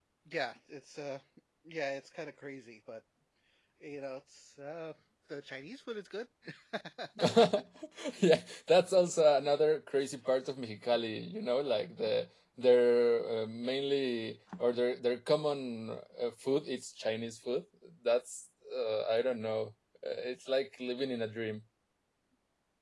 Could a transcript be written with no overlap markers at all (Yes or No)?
Yes